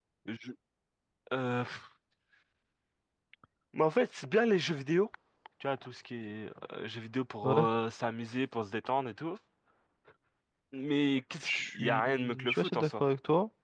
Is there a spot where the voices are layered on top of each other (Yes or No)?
Yes